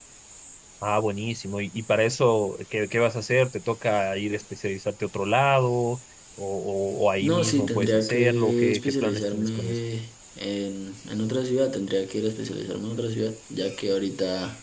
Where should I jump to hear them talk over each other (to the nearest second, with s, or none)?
7 s